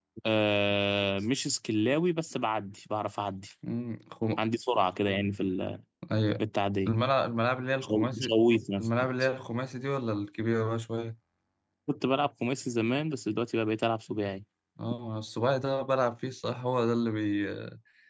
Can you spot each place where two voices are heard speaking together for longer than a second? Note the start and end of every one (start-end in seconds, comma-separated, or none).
none